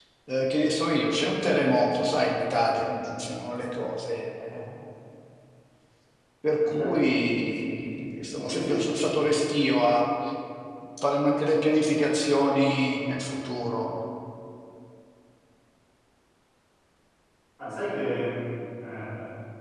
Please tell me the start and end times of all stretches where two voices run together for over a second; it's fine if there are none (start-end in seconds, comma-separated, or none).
none